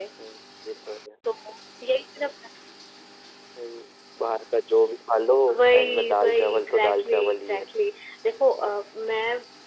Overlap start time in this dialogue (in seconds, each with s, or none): 5.7 s